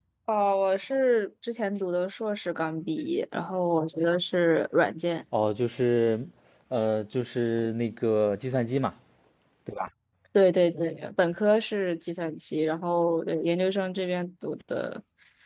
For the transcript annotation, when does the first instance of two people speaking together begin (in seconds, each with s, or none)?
none